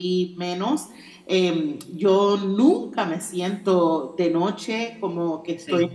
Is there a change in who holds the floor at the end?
No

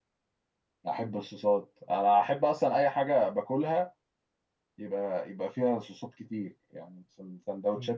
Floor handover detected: Yes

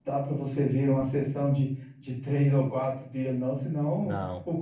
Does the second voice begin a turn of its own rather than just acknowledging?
No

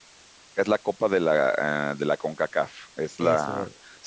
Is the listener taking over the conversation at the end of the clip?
No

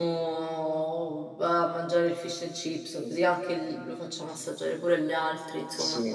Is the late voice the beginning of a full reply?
Yes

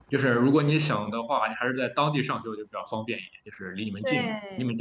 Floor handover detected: Yes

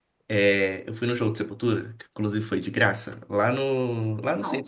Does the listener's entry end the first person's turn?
No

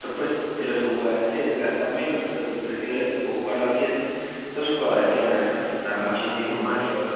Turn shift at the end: Yes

